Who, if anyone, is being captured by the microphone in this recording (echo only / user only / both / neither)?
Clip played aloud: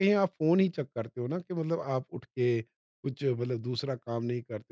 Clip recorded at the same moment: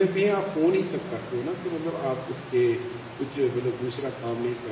echo only